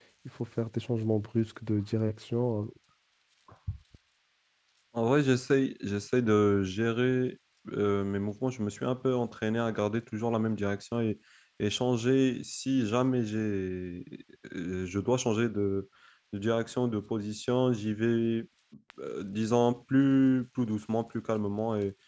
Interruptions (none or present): none